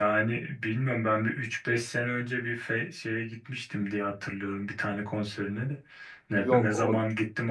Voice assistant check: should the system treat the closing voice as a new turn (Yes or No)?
No